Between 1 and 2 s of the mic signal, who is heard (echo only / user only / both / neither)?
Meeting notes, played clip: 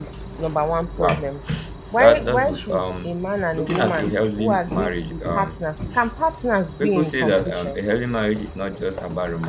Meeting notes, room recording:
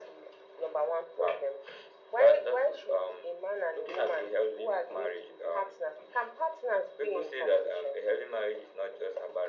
echo only